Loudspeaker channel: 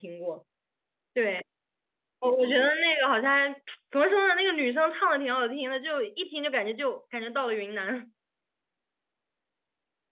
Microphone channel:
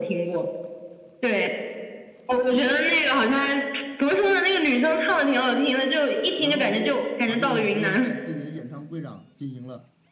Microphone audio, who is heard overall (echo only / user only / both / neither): both